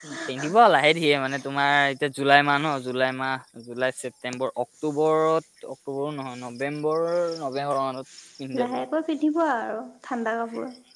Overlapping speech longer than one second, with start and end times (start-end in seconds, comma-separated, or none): none